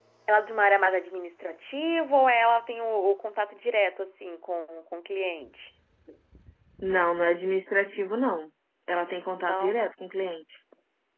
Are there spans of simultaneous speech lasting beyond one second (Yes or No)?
No